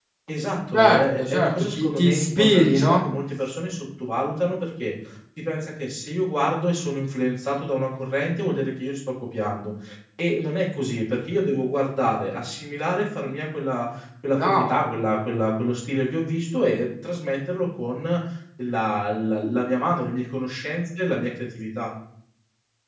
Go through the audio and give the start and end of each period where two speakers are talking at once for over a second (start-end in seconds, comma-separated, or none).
0.7-3.0